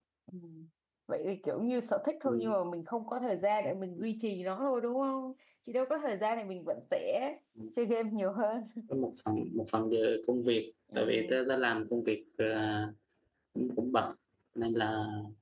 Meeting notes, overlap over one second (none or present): none